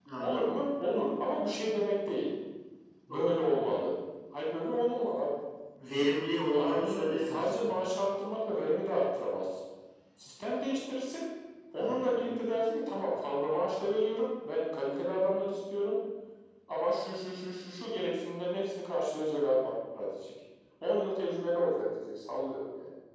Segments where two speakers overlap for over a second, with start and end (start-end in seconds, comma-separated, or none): 6.5-7.8